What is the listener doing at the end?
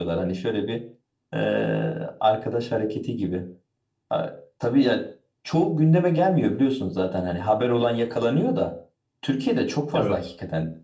listening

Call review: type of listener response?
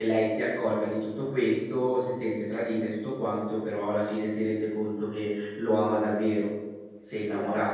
taking over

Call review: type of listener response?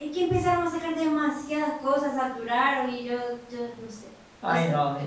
taking over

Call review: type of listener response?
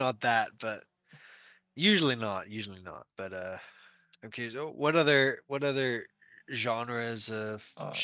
taking over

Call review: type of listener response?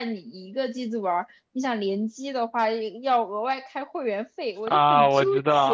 taking over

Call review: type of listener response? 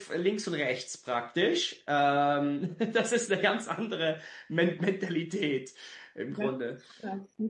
taking over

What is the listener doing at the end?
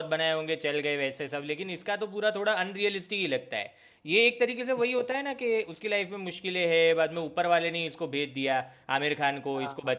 listening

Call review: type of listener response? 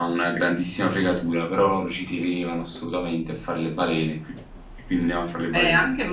taking over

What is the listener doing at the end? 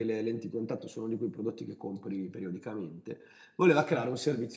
listening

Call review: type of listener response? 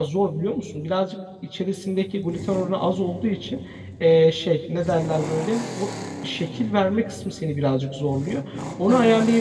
listening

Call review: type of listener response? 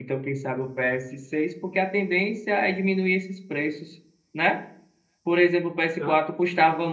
listening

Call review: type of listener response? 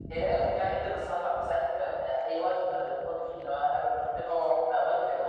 listening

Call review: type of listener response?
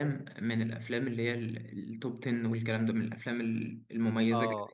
taking over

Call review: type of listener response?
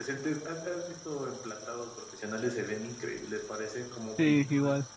taking over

